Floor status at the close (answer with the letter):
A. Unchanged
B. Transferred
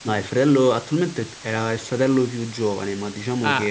B